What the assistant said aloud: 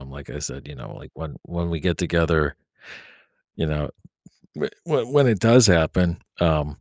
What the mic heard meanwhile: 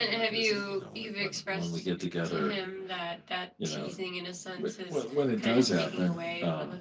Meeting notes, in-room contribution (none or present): present